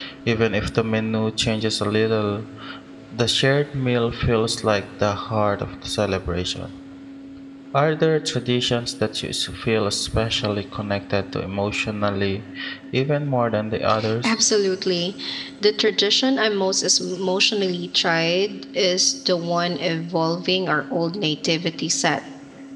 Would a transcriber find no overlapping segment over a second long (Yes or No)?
Yes